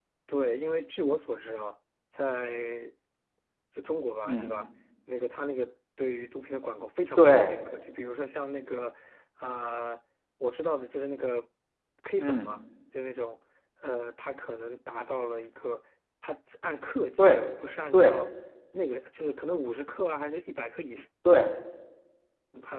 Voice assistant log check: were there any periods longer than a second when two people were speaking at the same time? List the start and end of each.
none

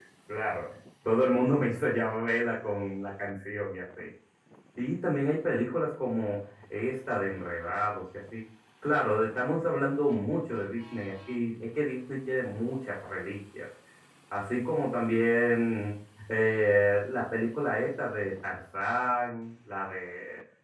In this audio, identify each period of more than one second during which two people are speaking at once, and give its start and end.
none

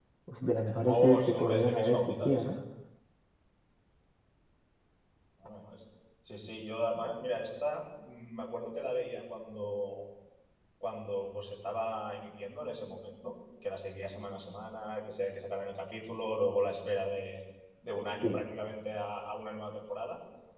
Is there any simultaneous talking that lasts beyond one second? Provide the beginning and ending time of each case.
0.8-2.5

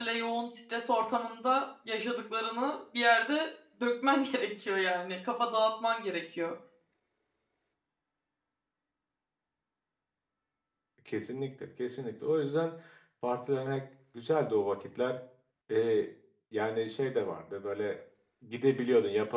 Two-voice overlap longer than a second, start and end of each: none

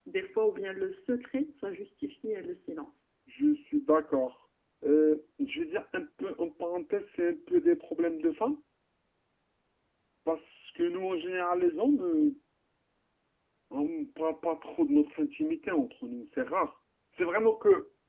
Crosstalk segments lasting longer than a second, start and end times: none

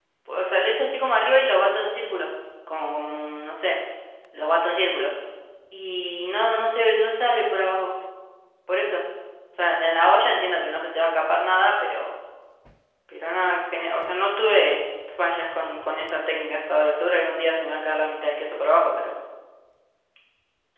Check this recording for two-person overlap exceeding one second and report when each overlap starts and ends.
none

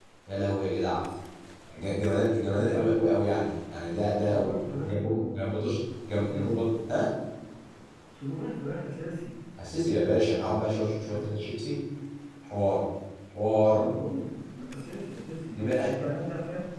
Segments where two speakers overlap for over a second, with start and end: 4.3-5.6

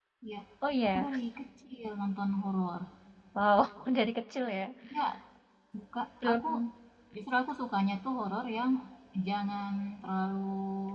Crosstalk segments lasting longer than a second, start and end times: none

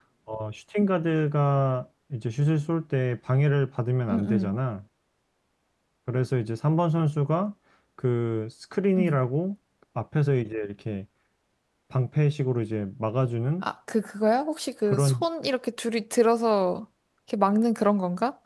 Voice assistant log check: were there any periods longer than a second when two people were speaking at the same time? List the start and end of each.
none

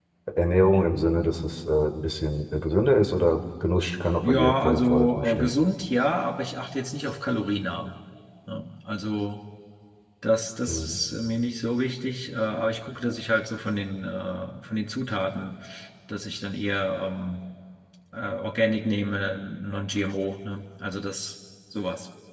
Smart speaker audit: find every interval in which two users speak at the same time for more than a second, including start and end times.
4.2-5.5

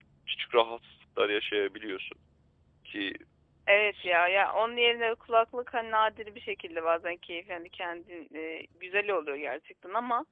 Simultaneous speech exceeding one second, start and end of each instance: none

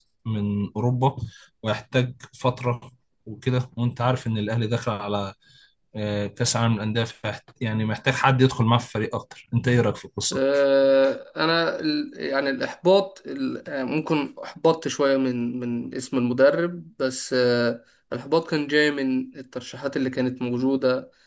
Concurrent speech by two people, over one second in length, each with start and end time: none

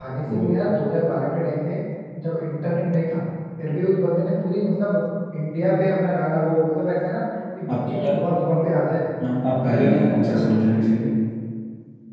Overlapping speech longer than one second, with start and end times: 9.6-10.9

